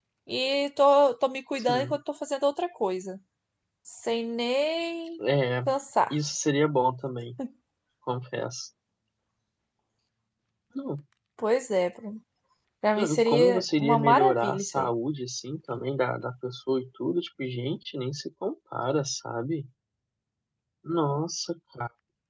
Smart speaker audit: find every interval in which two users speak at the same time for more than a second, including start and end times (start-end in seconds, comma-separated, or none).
13.0-14.9